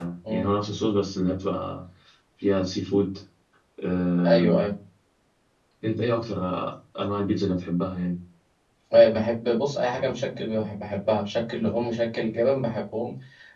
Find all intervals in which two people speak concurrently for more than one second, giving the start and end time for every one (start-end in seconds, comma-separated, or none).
none